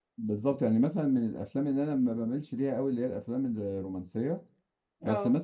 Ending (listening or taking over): listening